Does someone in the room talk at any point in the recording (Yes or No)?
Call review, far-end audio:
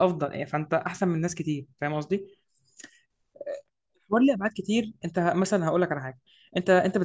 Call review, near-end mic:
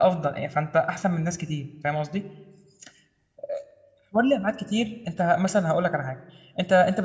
No